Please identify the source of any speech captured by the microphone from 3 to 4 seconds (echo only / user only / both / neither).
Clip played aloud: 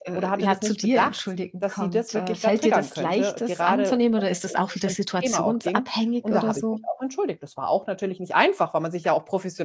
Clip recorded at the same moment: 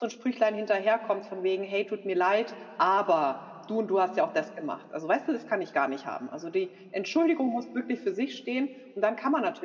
user only